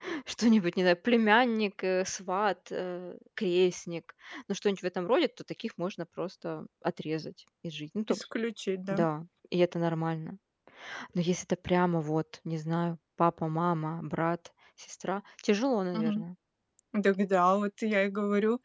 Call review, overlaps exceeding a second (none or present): none